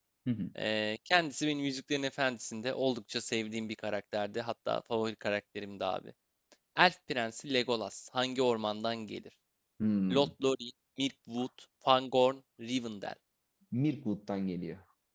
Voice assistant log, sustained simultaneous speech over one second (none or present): none